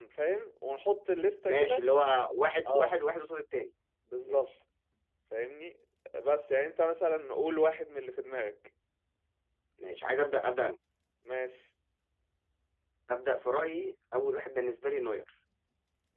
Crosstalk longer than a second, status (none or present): none